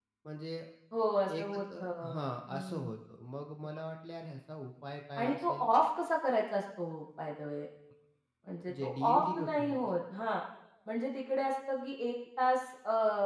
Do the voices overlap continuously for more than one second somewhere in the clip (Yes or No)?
Yes